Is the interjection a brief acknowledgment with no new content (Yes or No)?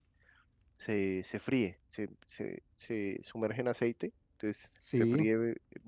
Yes